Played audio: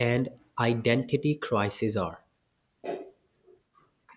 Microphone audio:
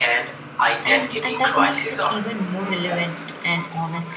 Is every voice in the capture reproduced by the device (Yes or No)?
No